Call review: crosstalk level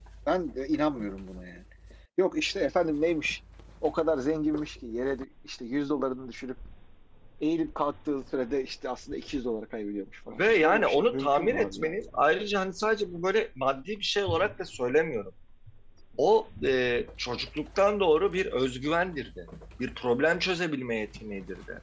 present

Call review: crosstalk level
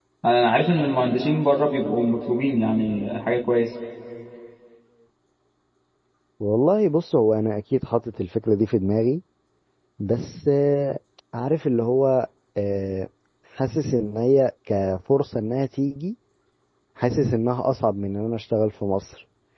none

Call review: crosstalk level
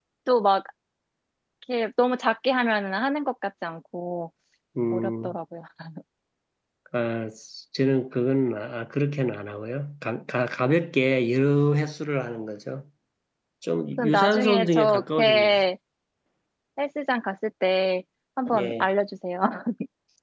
present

